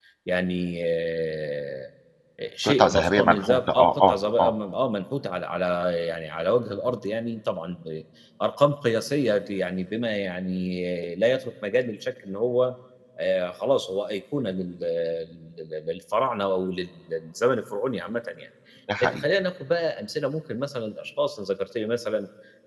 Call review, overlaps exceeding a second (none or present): present